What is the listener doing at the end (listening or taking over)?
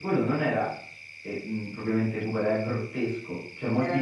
listening